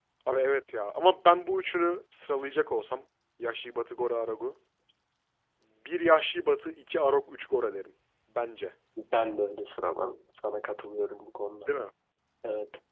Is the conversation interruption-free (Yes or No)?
Yes